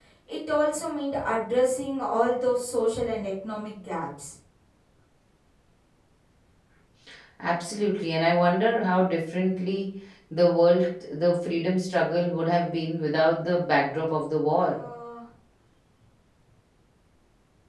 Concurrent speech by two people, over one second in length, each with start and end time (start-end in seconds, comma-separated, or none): none